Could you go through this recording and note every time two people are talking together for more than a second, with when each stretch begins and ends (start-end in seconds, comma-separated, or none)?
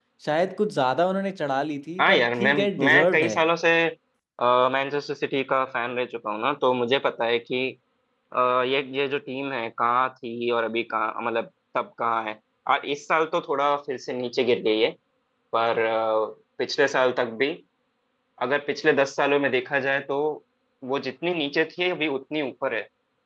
2.0-3.4